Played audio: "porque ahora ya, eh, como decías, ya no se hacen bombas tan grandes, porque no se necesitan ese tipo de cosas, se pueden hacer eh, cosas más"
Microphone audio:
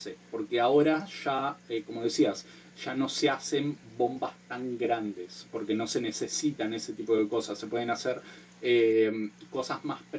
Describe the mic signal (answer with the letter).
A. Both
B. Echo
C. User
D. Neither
B